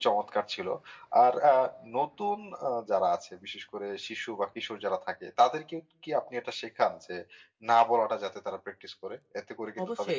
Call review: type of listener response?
taking over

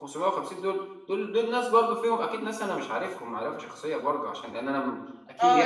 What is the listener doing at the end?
taking over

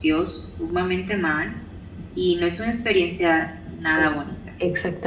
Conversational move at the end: taking over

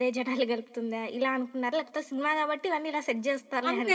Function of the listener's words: taking over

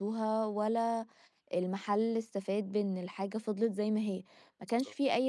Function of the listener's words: listening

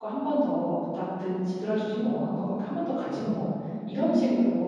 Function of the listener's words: listening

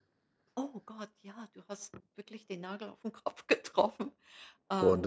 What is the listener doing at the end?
taking over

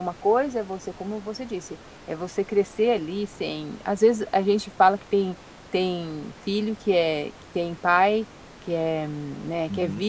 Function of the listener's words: listening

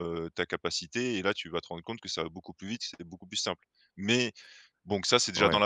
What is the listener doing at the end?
taking over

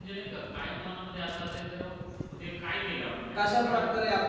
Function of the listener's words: taking over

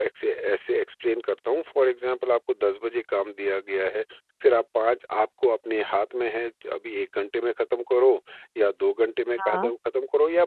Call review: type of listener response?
listening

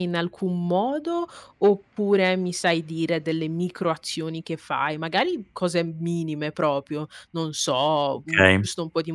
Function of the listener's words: listening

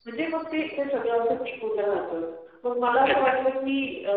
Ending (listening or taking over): listening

